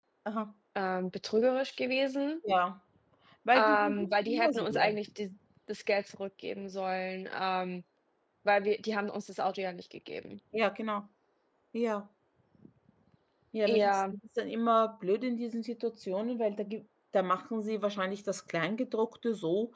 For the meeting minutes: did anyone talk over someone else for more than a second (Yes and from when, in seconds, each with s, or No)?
Yes, from 3.5 s